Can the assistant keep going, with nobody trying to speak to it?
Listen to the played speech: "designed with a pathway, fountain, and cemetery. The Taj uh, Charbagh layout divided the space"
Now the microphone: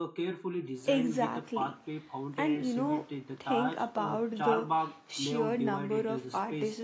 No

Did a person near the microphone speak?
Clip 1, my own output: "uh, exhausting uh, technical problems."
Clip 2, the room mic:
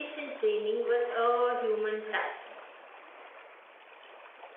Yes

